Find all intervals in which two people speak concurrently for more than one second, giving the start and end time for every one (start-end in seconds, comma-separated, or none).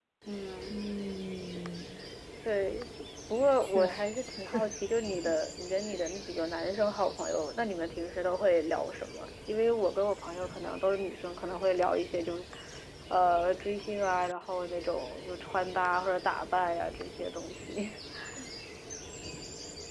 none